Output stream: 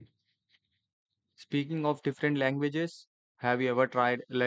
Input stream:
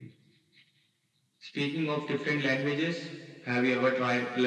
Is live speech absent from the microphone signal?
Yes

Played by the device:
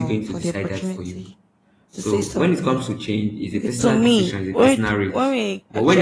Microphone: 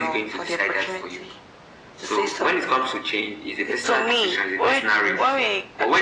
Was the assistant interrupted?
Yes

